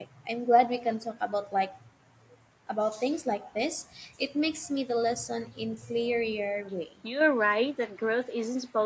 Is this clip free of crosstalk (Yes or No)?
Yes